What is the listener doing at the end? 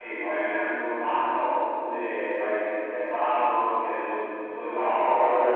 taking over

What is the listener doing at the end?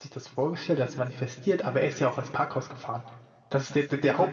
listening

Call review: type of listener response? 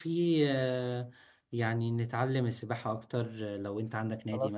taking over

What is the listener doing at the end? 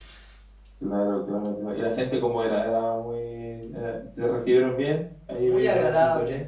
taking over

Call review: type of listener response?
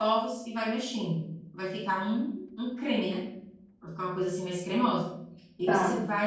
listening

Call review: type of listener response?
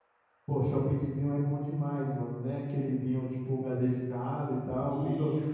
taking over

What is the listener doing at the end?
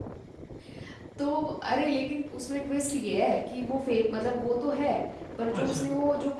listening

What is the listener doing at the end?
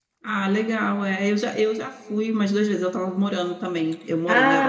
listening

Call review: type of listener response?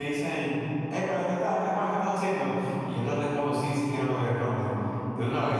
taking over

